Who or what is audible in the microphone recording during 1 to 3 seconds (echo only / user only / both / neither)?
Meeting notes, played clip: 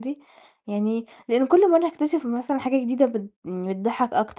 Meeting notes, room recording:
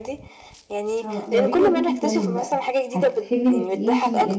both